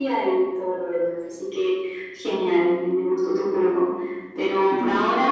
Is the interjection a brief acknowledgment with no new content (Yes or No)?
Yes